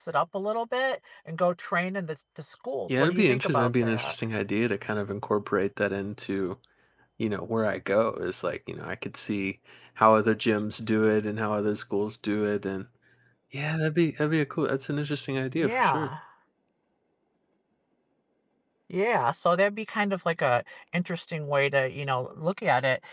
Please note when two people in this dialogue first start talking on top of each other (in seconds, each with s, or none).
2.9 s